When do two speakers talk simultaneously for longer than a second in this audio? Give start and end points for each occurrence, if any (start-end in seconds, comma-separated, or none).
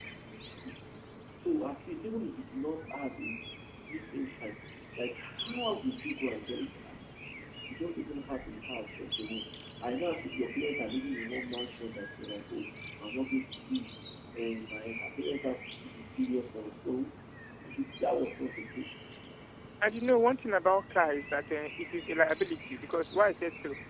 none